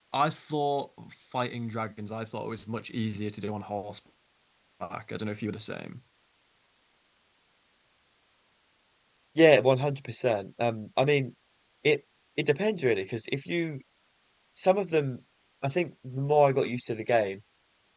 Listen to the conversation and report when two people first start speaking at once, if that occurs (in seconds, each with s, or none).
none